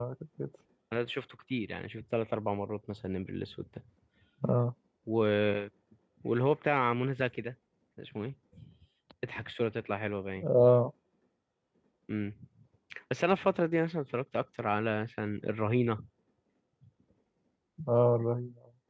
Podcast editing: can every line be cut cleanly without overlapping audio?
Yes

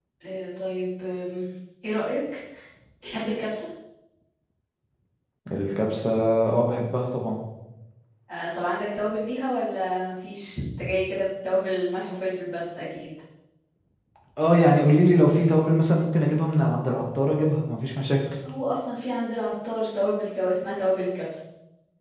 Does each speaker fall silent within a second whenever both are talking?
Yes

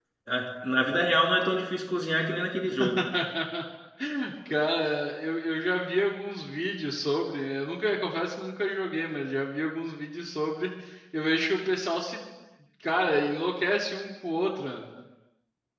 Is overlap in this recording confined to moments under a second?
Yes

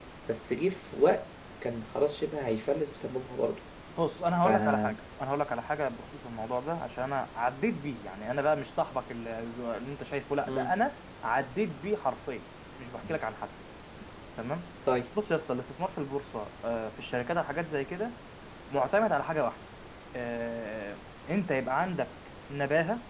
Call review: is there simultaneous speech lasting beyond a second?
No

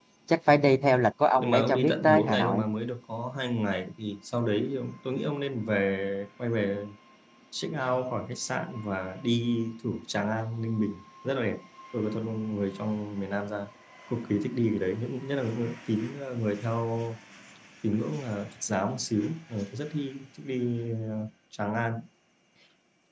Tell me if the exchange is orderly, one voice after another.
No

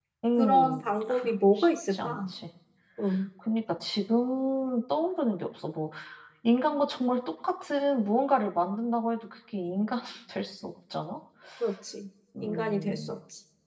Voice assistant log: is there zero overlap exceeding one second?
No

